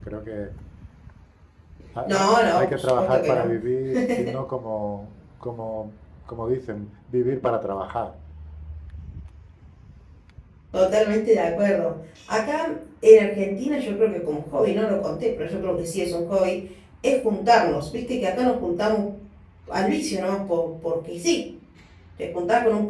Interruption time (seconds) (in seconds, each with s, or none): 2.0 s